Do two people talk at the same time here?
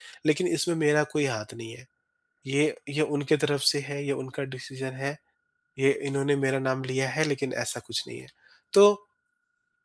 No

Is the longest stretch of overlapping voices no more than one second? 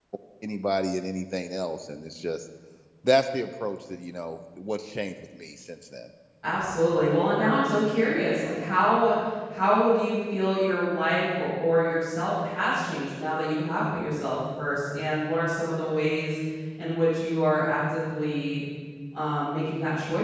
Yes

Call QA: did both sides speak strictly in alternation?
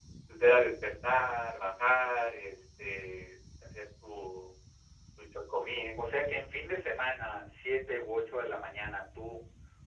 Yes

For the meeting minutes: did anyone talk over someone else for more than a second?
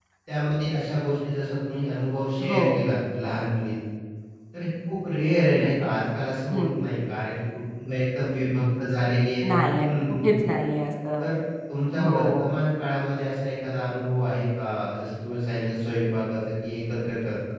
No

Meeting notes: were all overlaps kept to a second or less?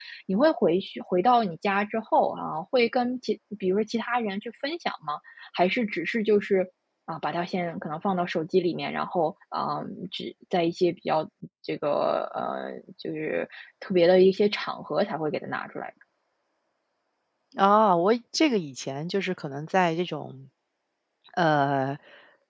Yes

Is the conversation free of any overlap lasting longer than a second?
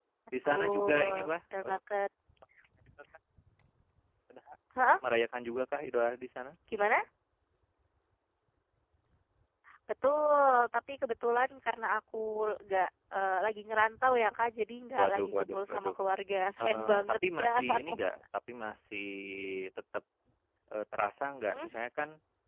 No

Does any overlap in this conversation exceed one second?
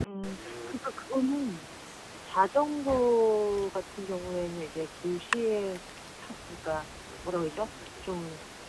No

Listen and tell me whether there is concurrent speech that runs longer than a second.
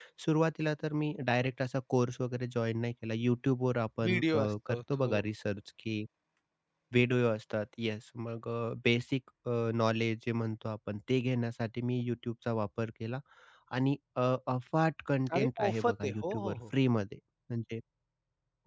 Yes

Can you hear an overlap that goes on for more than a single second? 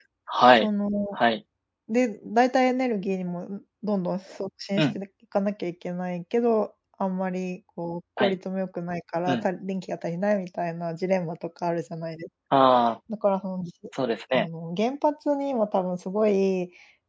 No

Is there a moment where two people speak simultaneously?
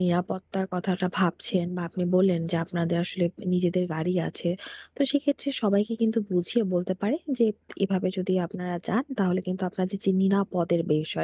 No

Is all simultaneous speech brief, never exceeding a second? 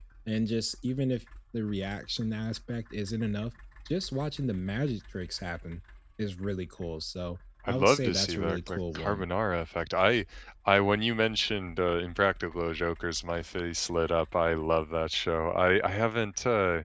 No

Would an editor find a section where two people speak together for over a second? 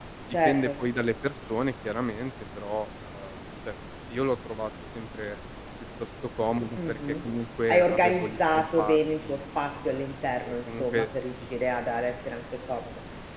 Yes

